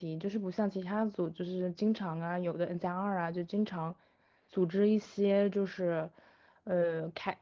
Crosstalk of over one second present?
No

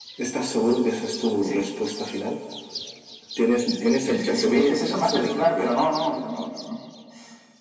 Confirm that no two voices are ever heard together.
No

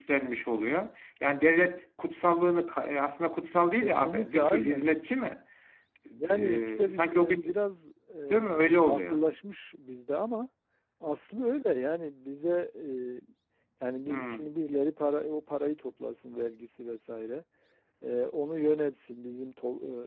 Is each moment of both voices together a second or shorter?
No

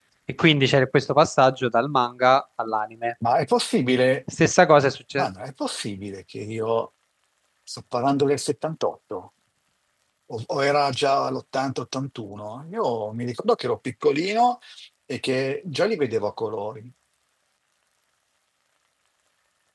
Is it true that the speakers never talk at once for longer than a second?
Yes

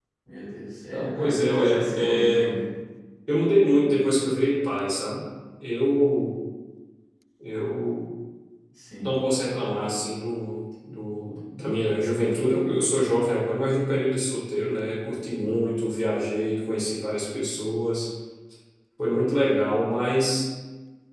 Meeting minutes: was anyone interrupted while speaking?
Yes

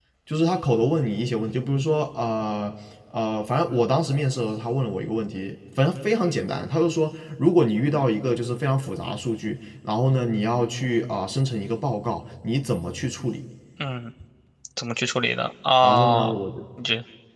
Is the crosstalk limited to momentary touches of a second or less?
Yes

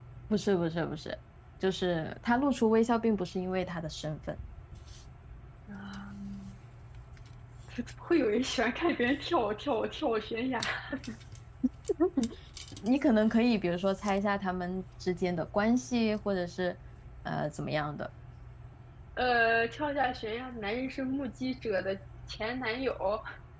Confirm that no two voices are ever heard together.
Yes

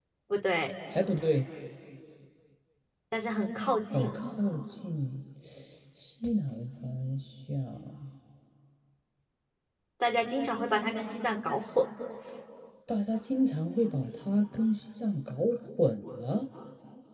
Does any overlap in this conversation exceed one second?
No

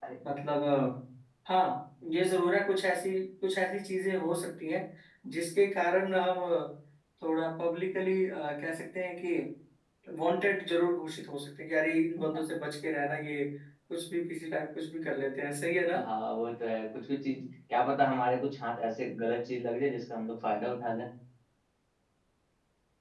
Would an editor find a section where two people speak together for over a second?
No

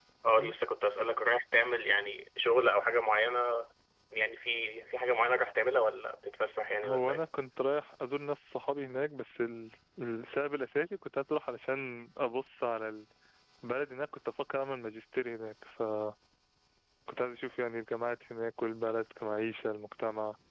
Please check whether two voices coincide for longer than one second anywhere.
No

